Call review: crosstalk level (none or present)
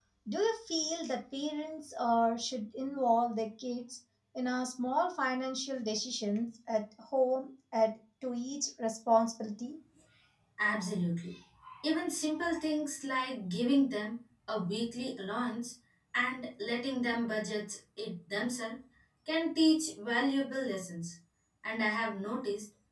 none